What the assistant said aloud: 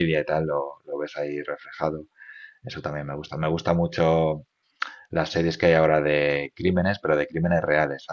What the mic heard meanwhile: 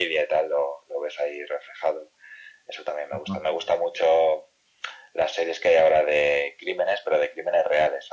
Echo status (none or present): present